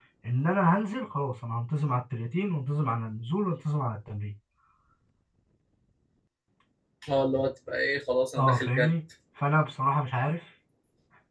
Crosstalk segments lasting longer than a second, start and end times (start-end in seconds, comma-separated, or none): none